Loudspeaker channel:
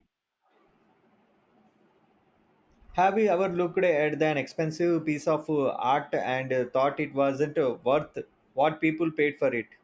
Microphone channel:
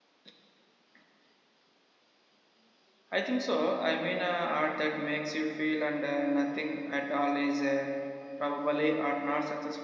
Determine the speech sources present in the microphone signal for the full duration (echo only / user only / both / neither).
user only